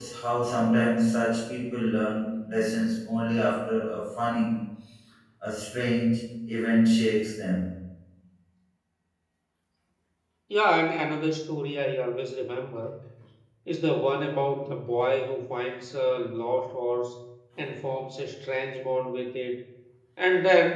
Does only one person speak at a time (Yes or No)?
Yes